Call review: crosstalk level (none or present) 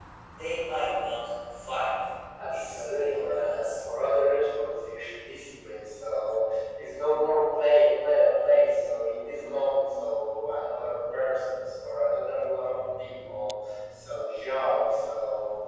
present